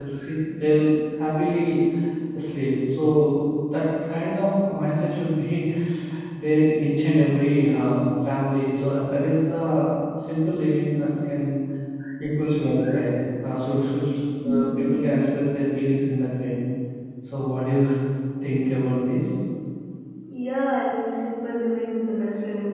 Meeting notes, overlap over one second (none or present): none